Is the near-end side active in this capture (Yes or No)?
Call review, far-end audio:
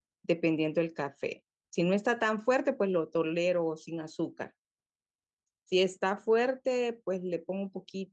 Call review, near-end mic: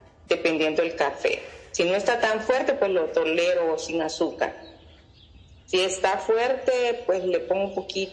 No